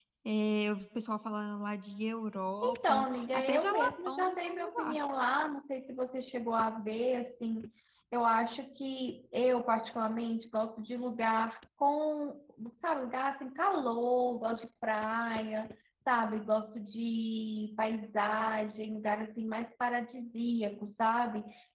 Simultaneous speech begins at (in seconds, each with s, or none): 2.6 s